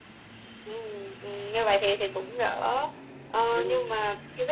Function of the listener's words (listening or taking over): listening